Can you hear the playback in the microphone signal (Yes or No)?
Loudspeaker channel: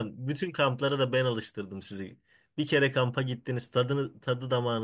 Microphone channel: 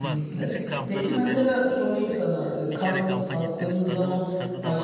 Yes